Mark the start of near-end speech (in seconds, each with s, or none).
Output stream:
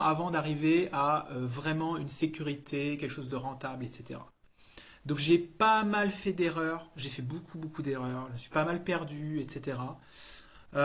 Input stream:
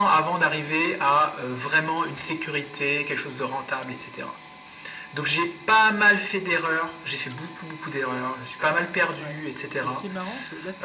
9.2 s